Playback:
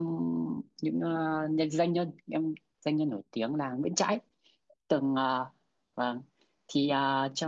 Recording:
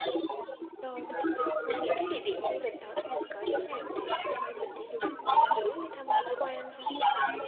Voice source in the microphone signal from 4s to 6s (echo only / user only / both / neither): both